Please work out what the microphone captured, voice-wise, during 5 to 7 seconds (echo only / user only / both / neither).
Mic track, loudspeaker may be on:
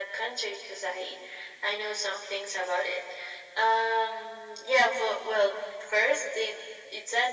echo only